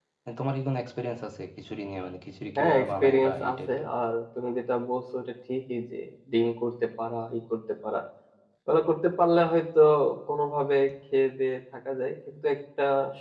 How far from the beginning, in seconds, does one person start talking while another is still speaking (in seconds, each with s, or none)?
2.6 s